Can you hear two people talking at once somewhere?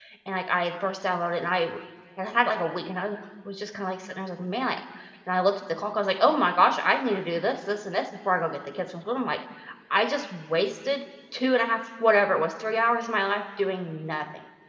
No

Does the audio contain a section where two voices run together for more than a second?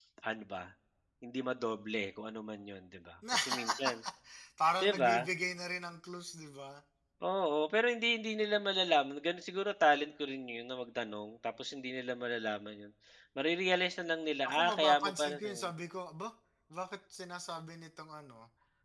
Yes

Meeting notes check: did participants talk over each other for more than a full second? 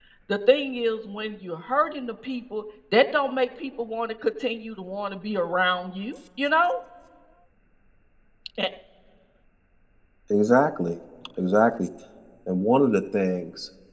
No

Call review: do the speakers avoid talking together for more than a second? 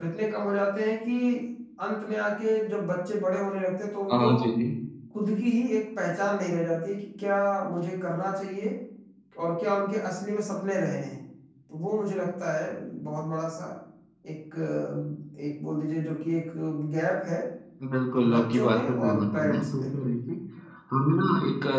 No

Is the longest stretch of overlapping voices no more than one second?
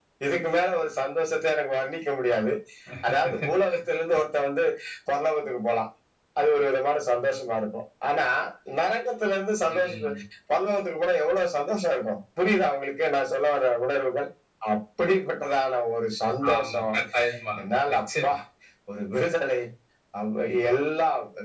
Yes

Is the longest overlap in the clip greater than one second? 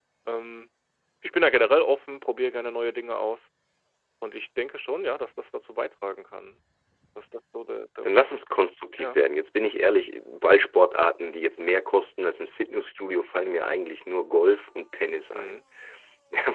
No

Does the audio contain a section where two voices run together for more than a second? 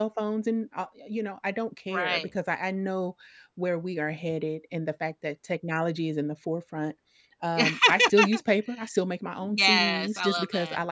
Yes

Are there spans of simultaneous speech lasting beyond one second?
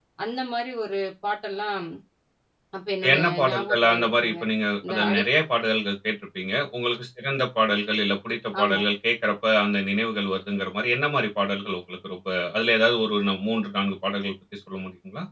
Yes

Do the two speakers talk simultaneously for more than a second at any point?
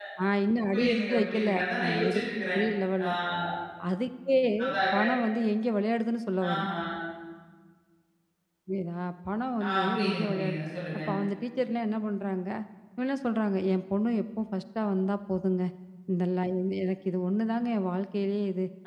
Yes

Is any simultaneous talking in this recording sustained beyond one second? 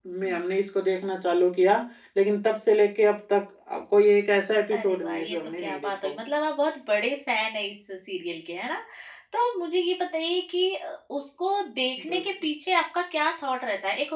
Yes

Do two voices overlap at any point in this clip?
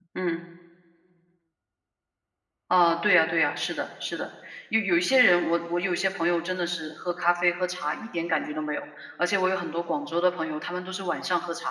No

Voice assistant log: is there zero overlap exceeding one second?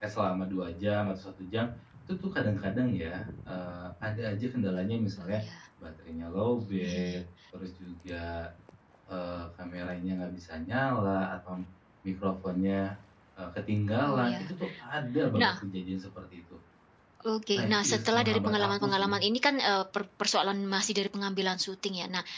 No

